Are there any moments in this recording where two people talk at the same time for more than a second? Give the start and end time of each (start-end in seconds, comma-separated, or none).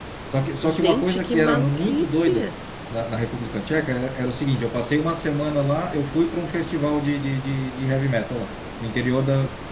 0.6-2.5